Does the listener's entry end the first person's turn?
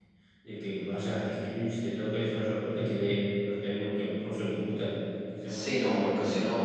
Yes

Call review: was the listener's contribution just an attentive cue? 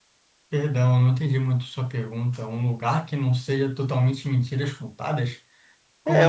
No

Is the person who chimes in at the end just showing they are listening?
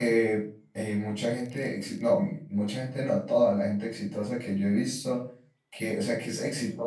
Yes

